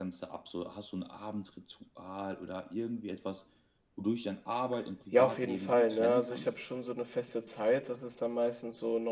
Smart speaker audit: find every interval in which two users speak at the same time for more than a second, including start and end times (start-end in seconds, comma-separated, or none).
5.1-6.6